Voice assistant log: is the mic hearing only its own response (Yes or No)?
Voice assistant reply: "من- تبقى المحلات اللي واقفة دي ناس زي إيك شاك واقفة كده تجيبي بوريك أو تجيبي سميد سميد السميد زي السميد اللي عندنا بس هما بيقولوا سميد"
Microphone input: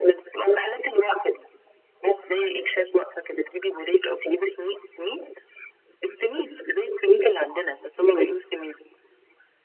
Yes